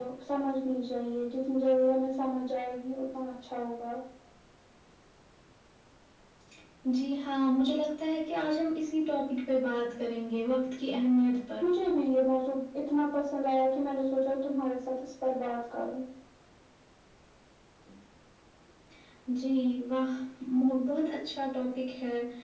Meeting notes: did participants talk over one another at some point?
No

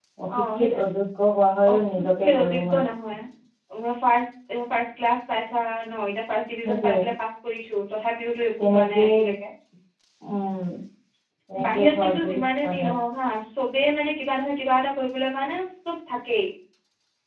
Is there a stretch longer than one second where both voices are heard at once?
Yes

